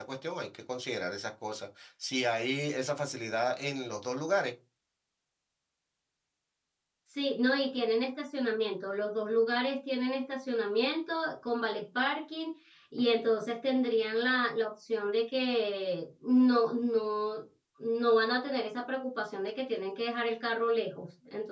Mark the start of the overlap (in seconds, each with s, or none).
none